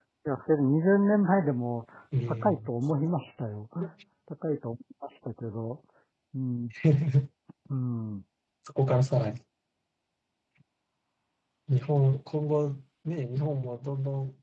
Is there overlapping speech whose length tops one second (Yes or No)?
No